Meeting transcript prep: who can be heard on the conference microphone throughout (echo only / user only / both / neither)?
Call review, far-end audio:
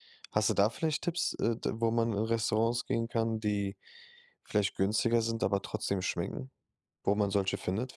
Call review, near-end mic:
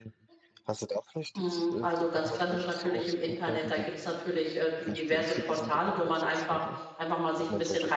both